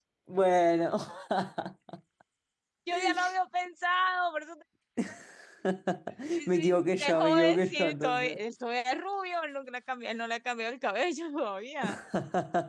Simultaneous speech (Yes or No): Yes